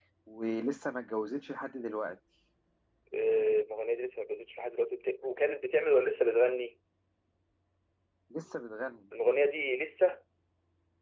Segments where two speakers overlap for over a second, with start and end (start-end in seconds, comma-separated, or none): none